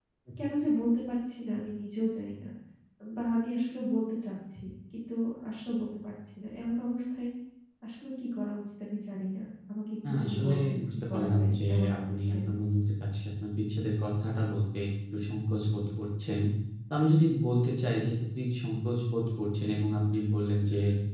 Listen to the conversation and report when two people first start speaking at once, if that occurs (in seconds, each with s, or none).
10.0 s